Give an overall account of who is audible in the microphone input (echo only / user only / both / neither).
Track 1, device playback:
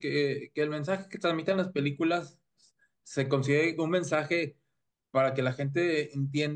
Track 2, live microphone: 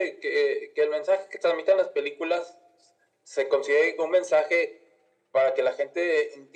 echo only